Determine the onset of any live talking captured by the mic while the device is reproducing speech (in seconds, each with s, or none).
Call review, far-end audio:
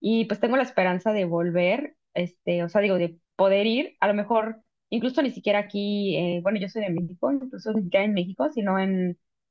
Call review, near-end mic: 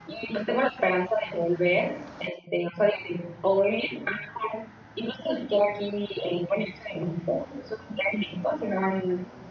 none